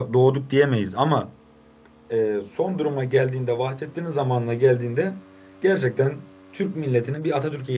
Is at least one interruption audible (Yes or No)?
No